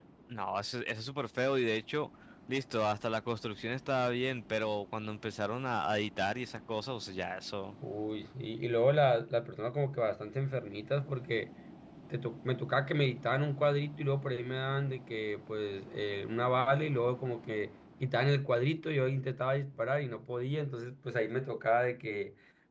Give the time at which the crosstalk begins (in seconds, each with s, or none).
none